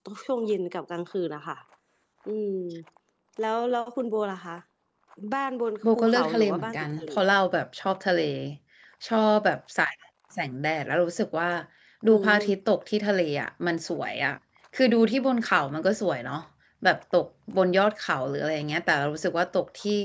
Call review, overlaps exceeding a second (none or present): present